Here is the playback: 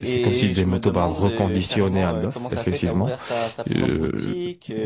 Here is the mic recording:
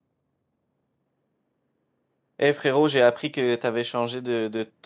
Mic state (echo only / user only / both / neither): user only